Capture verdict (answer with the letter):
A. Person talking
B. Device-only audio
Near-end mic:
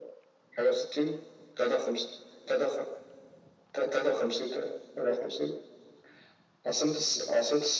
B